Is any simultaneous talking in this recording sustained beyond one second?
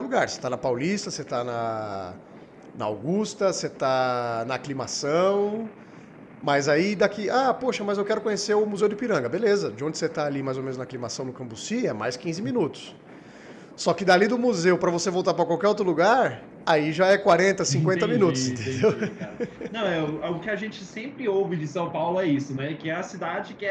Yes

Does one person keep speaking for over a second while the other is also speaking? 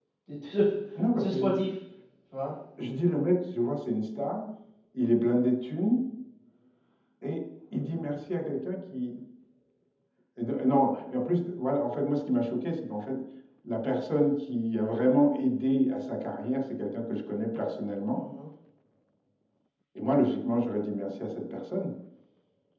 No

